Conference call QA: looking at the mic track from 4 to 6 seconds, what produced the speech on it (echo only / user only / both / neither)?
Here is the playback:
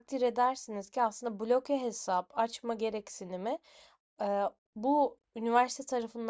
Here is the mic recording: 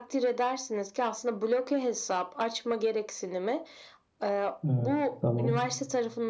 both